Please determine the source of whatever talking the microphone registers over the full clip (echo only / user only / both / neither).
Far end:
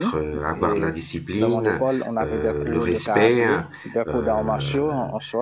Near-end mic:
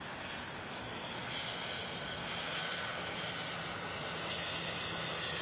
neither